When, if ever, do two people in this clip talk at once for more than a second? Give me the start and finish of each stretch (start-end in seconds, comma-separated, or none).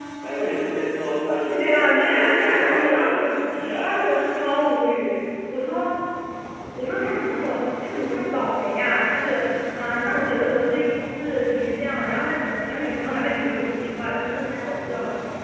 1.6-3.3